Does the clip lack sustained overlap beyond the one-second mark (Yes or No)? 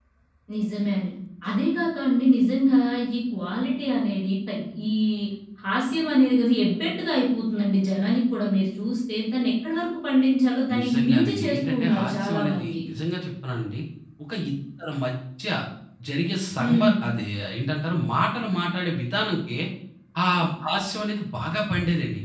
No